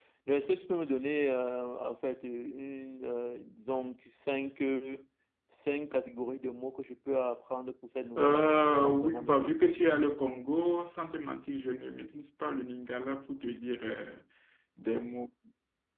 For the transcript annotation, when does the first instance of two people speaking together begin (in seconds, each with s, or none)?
8.2 s